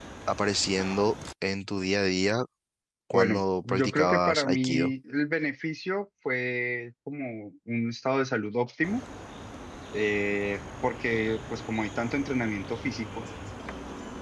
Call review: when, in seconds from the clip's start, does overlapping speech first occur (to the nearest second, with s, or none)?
3 s